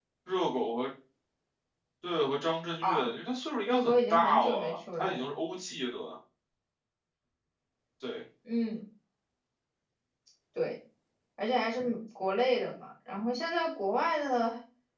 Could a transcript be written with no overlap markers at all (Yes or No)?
No